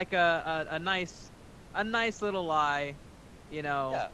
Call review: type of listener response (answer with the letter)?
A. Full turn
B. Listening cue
A